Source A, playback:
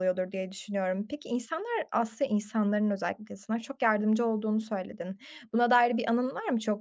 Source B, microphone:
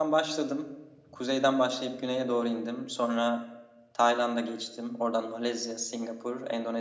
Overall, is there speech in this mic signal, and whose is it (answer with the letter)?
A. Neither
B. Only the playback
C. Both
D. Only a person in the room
D